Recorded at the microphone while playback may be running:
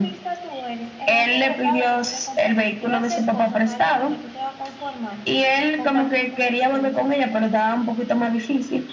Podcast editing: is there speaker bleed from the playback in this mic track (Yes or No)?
Yes